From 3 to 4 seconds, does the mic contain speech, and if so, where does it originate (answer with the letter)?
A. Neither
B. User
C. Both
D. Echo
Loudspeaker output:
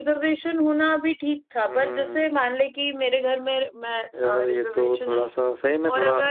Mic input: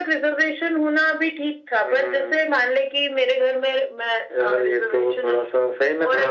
D